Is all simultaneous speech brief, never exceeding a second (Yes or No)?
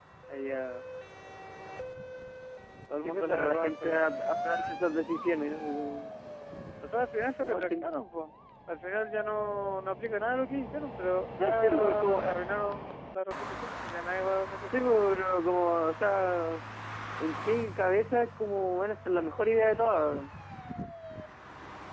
No